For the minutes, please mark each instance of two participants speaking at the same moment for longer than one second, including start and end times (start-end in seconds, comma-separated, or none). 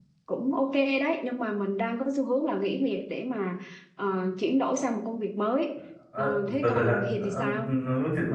6.2-7.4